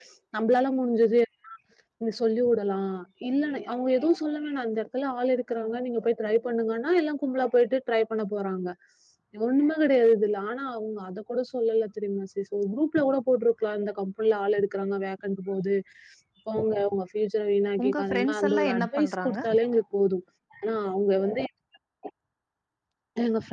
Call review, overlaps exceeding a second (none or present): present